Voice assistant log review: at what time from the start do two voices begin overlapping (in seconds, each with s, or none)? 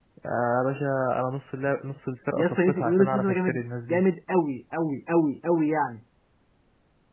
2.4 s